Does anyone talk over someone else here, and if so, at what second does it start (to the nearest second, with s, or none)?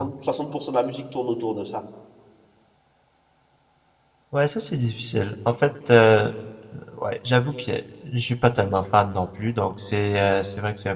none